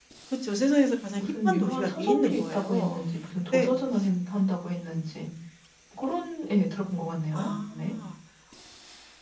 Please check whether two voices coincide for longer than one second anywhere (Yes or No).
Yes